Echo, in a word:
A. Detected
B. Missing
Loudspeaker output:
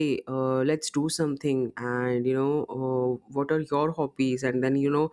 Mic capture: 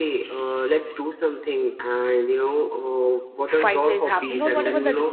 A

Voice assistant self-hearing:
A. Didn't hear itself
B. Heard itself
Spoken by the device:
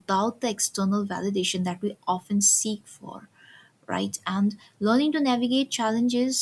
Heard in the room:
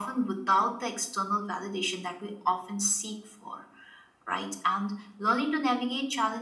B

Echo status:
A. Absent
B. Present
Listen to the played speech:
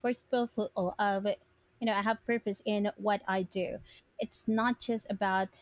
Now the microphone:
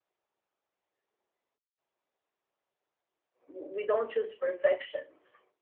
A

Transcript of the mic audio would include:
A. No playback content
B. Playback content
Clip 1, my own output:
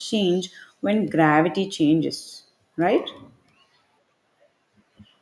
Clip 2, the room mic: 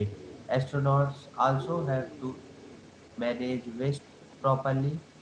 A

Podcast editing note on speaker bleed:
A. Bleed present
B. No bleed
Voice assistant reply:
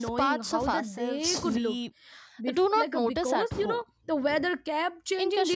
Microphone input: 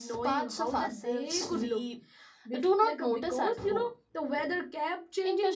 A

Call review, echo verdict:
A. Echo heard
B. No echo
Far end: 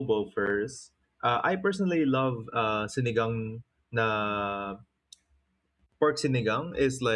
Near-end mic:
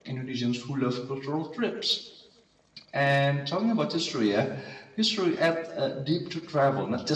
B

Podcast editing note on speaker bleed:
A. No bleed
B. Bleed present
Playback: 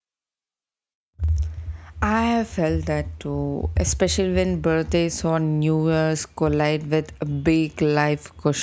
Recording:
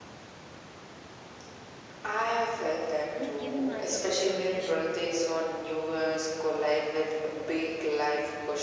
B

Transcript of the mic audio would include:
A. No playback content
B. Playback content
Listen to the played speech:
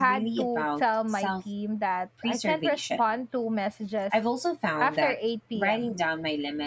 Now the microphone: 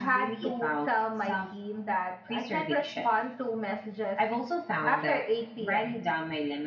B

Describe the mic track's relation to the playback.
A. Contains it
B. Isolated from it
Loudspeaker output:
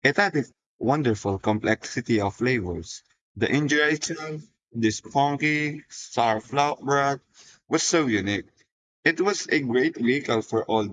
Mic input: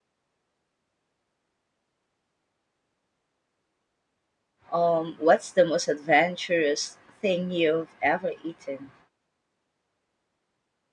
B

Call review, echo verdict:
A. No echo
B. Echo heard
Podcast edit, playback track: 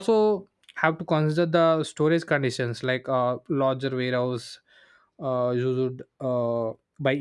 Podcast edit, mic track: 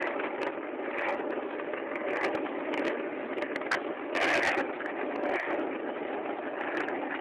A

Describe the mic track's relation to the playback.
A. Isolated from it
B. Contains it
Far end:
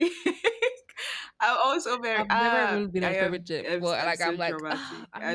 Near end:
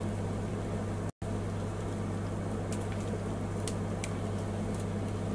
A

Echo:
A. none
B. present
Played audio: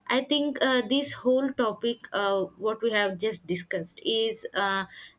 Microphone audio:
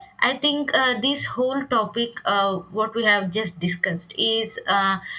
B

